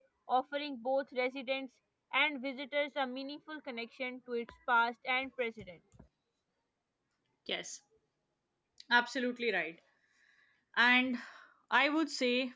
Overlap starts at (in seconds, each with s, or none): none